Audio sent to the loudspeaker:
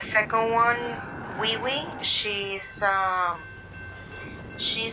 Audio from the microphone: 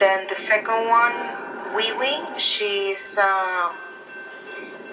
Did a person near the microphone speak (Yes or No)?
No